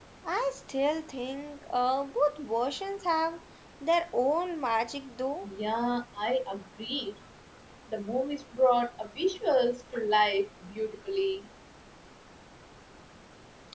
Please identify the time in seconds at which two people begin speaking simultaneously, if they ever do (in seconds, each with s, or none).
none